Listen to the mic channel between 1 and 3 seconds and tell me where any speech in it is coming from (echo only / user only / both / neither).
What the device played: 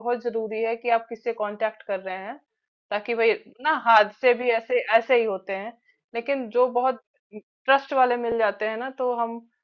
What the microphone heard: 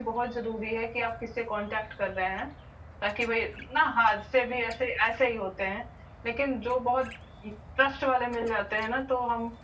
echo only